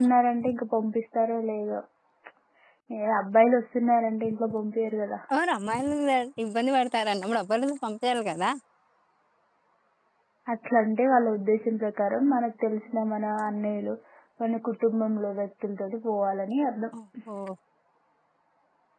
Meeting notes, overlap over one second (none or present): none